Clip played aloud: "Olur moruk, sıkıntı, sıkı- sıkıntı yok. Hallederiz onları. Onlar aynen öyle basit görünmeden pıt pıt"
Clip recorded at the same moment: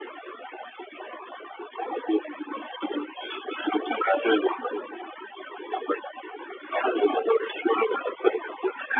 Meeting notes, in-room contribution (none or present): none